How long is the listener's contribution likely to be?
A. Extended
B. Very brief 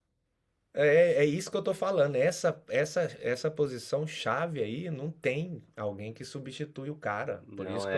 B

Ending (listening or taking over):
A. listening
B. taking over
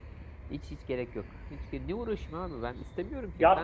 B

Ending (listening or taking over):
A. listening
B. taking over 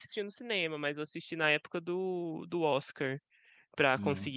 A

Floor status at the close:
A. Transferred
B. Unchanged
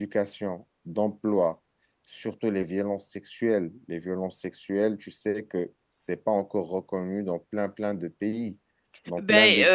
A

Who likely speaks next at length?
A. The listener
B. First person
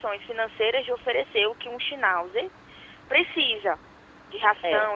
B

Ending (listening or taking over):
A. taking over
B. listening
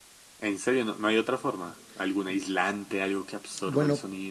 A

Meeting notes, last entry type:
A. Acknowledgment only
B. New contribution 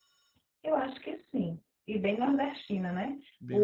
A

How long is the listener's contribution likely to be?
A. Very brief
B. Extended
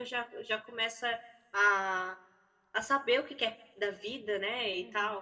B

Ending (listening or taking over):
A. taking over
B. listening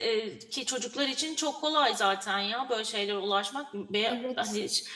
B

